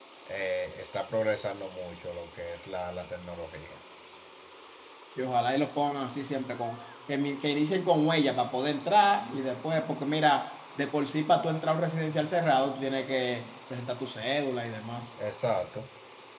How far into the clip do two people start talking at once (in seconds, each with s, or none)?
none